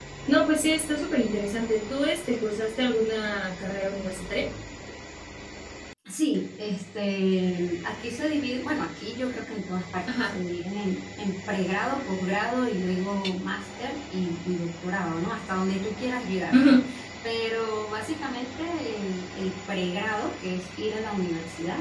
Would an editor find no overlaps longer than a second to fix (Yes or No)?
Yes